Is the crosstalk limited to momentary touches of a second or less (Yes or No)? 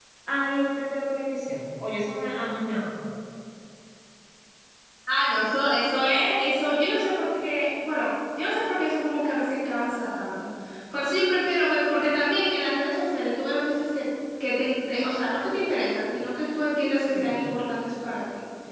Yes